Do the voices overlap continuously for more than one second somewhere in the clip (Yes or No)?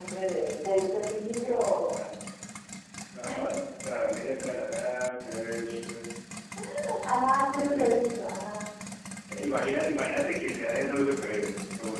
No